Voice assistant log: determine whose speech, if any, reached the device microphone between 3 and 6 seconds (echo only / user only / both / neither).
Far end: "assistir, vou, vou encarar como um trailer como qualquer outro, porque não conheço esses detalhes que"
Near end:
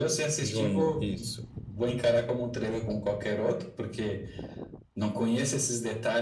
echo only